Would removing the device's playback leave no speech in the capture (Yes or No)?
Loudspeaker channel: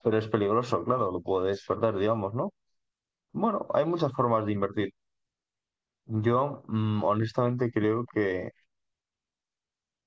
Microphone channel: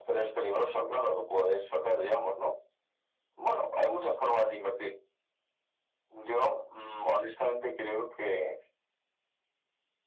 Yes